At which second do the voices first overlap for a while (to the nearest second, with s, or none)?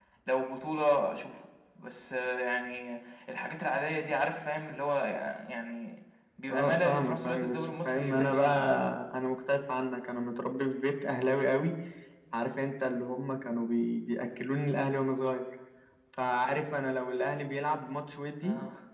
6 s